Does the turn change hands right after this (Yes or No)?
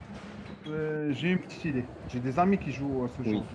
Yes